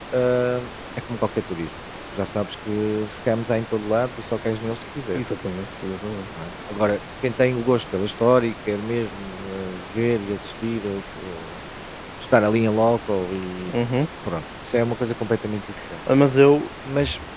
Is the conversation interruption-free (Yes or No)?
Yes